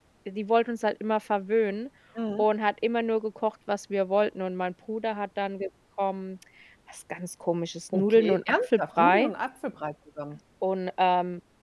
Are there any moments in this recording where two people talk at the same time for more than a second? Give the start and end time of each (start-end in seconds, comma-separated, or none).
7.9-9.3